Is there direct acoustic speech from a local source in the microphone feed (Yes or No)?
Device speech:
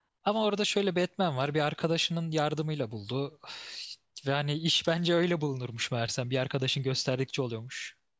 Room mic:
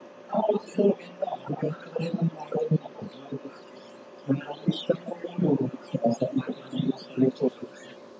No